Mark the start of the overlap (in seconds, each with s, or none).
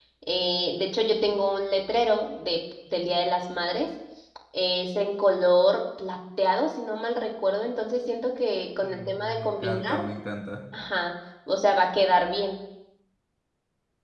8.8 s